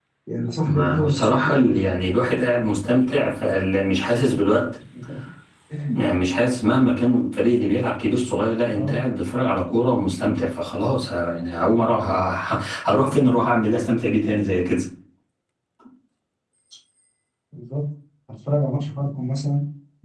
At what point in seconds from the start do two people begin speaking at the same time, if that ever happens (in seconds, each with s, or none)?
0.6 s